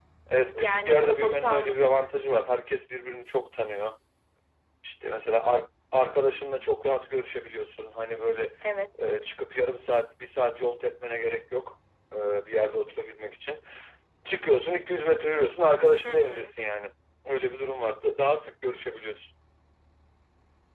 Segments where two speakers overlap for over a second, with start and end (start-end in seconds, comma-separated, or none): 0.5-2.1